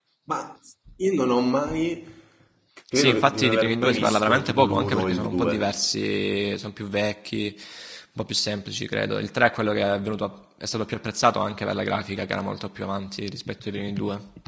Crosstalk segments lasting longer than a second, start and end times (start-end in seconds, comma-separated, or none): 2.9-5.7